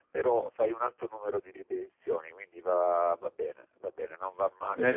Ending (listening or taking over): listening